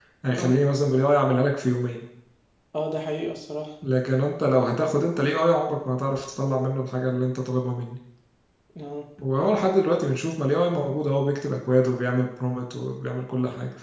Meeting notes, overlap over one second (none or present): none